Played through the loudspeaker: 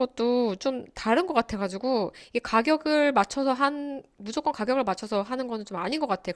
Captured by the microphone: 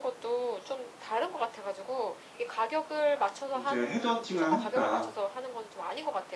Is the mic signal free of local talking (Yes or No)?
No